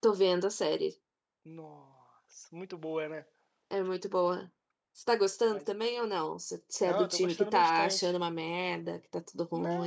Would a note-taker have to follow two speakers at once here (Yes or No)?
Yes